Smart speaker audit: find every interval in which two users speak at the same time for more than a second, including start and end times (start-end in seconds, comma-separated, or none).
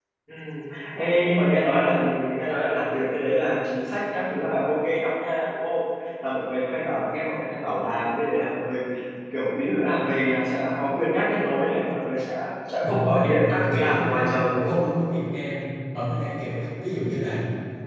12.8-14.8